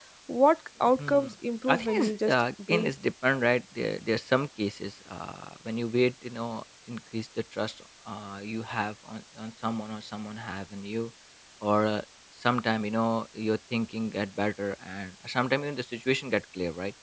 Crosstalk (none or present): present